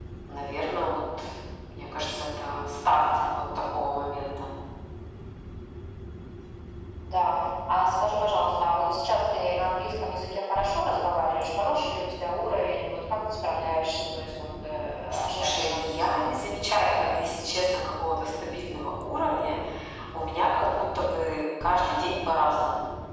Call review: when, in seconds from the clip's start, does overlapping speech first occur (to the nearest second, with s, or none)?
15 s